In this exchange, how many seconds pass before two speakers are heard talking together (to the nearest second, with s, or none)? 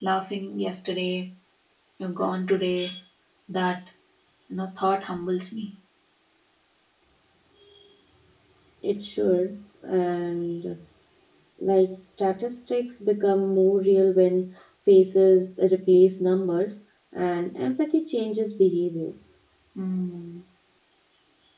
none